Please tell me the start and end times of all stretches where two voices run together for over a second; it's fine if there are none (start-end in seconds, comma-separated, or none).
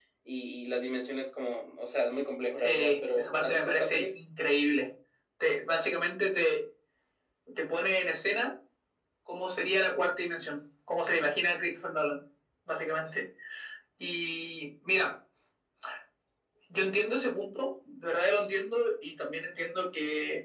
2.6-4.1